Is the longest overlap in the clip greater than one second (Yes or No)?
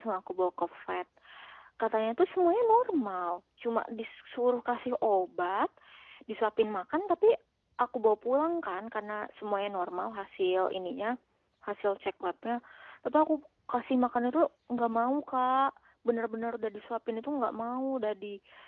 No